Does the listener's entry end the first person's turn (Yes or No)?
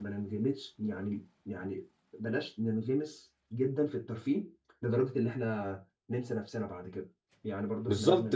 Yes